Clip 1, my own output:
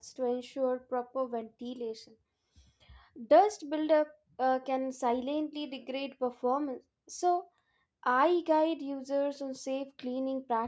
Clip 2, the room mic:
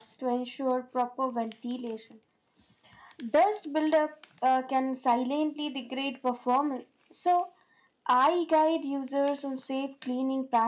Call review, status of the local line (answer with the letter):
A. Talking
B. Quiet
B